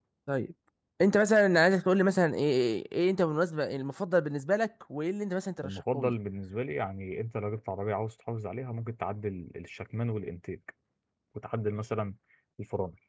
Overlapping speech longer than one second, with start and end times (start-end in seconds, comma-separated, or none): none